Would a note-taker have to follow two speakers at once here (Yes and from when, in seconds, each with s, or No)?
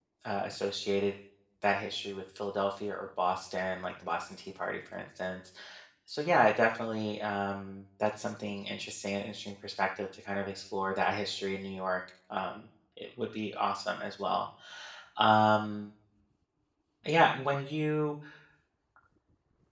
No